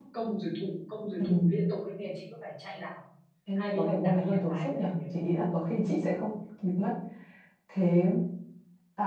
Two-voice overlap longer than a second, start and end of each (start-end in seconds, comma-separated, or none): 3.6-4.9